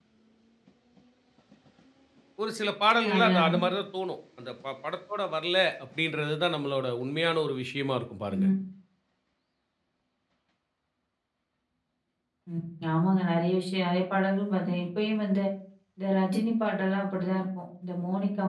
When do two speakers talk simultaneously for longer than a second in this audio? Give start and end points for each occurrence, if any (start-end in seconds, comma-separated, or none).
none